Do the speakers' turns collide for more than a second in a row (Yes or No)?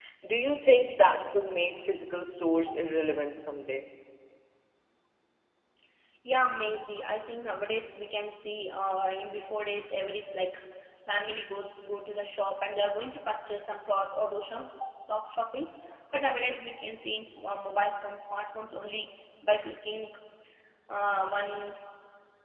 No